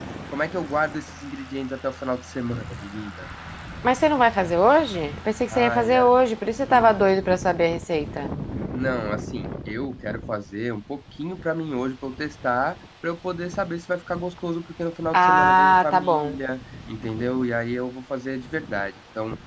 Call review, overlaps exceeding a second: present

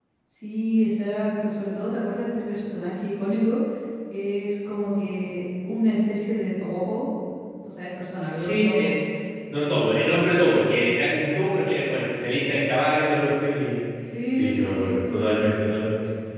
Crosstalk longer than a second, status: present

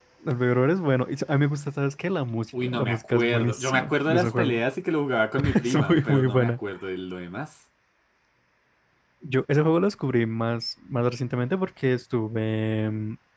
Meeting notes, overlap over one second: present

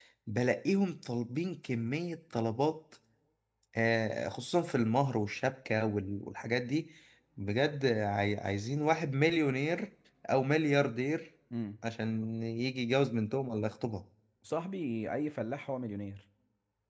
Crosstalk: none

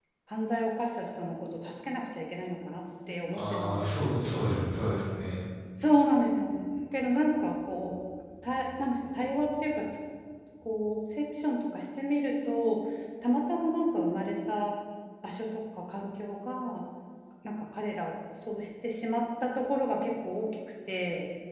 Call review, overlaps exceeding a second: present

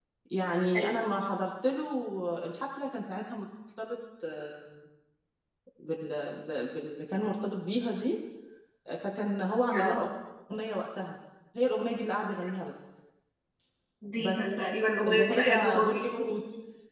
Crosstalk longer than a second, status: present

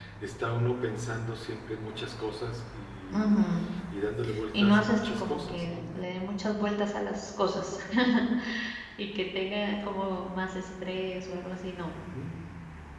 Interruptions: present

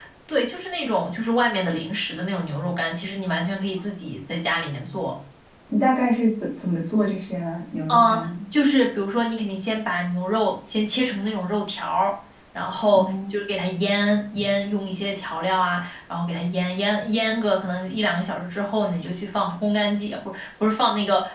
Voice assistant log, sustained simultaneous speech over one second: none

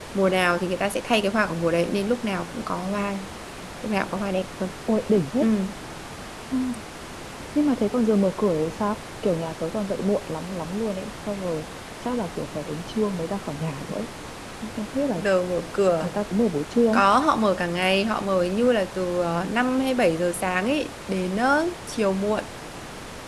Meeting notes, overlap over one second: none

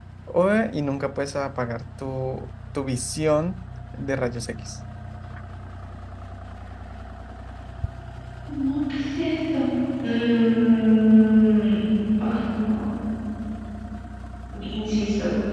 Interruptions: none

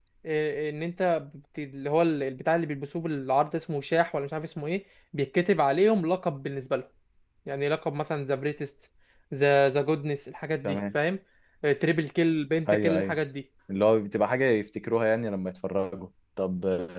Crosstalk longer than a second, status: none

